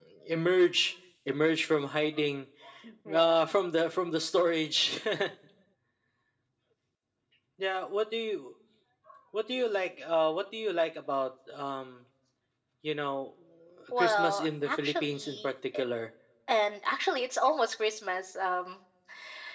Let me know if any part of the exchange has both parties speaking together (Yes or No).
Yes